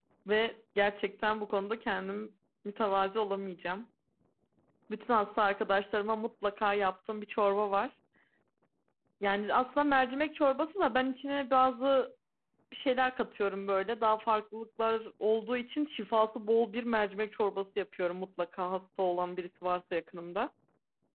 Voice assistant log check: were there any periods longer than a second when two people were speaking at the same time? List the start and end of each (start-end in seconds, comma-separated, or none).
none